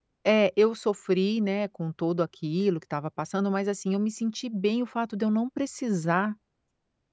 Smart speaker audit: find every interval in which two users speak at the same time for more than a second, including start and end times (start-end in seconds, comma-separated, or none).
none